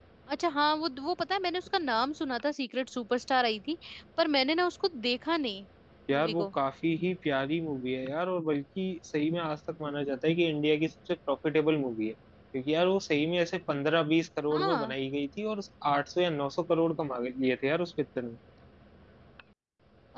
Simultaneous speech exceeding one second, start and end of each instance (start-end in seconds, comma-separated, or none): none